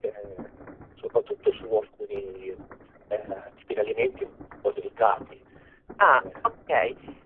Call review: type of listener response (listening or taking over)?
taking over